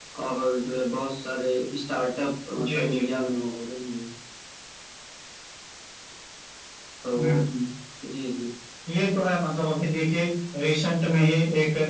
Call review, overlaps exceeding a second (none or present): none